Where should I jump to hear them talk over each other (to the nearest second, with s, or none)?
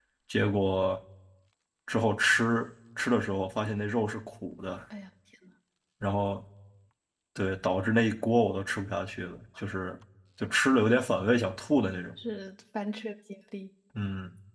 none